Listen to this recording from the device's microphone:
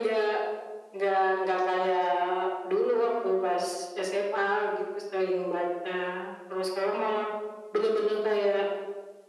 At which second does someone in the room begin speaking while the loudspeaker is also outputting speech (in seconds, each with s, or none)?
none